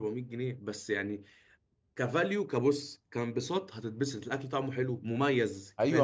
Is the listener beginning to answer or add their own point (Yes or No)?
Yes